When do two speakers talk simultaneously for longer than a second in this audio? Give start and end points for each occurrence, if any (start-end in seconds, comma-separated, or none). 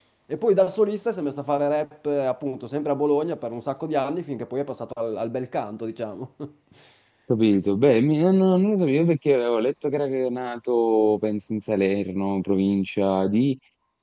none